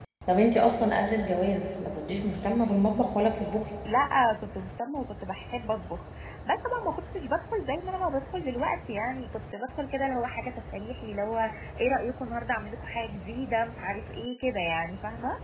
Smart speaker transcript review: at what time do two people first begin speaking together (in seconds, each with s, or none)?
none